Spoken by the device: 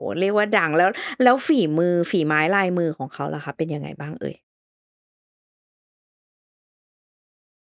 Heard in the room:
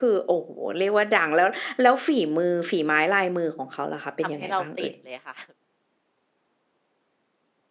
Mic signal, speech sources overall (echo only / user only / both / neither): both